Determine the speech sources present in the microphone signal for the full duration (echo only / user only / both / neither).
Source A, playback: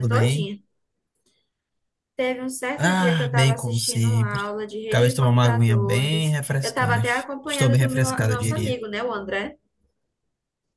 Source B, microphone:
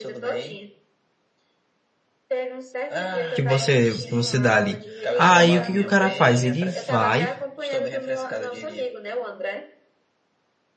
both